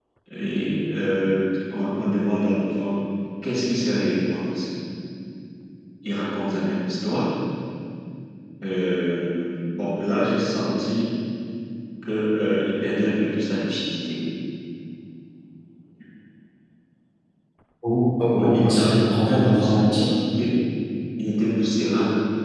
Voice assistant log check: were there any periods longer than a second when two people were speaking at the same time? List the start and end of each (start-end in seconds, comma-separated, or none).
18.3-20.1